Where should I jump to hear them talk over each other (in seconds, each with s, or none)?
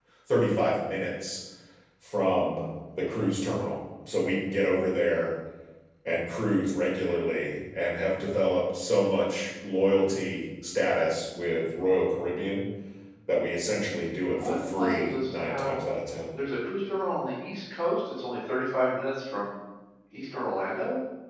14.3 s